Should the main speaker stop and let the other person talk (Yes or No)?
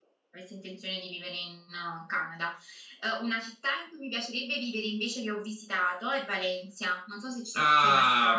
Yes